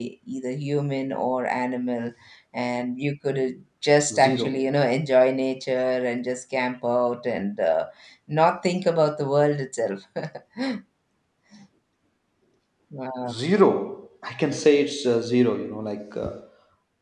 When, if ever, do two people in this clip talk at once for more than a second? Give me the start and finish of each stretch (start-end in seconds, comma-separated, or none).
none